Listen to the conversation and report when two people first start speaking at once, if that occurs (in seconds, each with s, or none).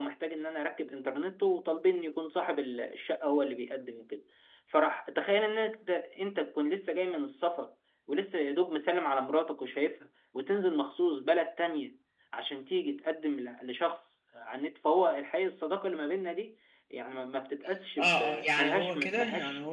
18.0 s